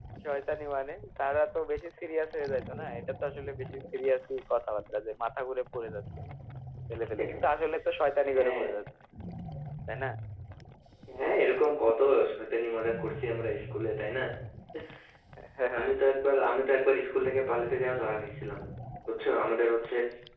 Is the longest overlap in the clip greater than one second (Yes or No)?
No